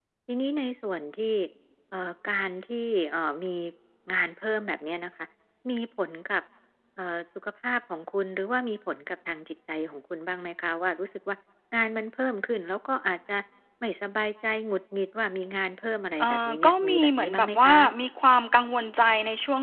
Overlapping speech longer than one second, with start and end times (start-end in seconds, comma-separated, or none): 16.2-17.8